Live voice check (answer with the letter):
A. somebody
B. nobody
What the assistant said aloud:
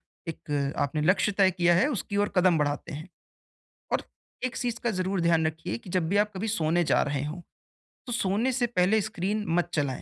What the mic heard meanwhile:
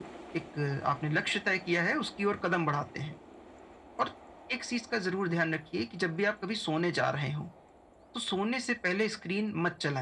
B